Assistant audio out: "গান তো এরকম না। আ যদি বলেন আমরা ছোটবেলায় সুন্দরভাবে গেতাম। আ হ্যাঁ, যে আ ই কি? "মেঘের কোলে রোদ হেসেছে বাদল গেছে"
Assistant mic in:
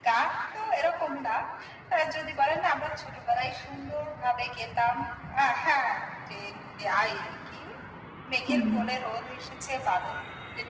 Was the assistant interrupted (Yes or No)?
Yes